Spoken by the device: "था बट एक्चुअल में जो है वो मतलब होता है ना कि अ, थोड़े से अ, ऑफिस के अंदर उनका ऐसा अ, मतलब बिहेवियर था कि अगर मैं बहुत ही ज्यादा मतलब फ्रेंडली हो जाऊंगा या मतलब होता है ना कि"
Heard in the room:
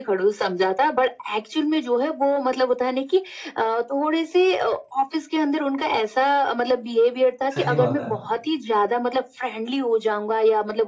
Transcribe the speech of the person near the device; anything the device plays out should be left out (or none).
सही बात है।